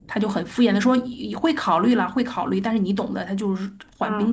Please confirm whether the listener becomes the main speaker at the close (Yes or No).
No